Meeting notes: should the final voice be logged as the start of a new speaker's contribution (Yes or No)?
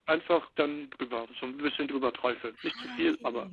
Yes